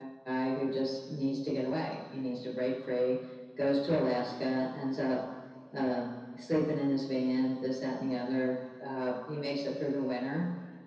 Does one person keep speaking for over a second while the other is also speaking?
No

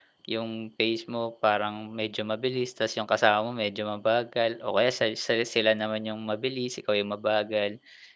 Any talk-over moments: No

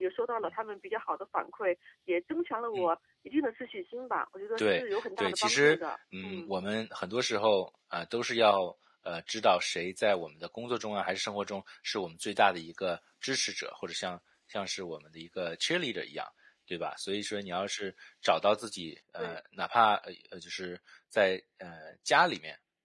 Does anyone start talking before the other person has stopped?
Yes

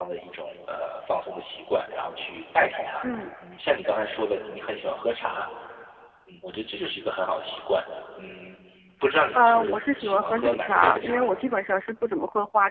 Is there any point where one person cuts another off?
Yes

